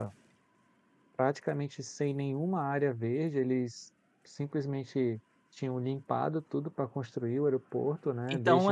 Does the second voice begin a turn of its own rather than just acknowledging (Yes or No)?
Yes